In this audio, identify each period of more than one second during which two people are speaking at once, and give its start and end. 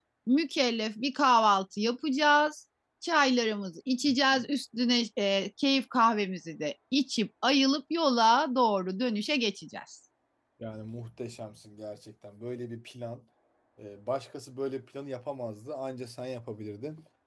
none

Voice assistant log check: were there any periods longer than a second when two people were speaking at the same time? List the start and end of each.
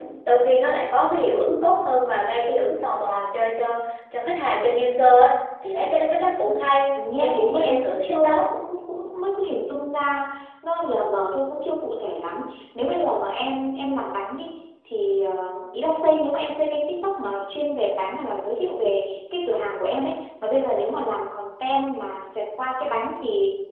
7.0-8.5

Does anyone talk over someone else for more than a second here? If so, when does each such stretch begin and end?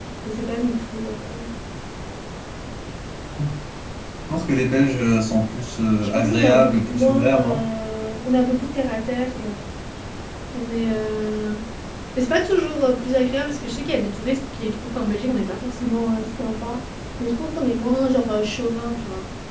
6.0-7.3

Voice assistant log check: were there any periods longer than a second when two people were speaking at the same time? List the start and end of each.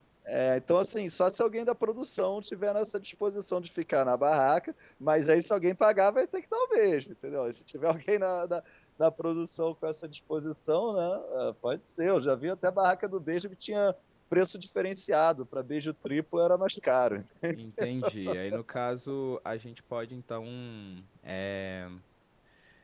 none

